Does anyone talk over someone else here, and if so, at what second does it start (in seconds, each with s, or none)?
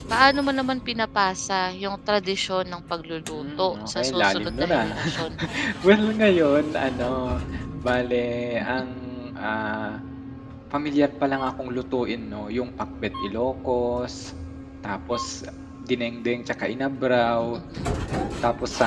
3.3 s